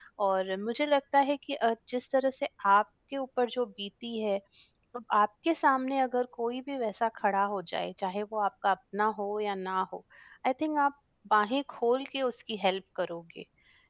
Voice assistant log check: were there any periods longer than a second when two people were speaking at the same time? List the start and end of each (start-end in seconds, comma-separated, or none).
none